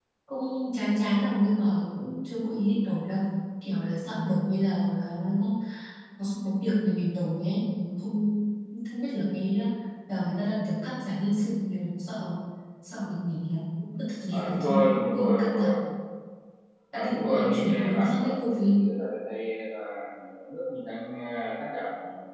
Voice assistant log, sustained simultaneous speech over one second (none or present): present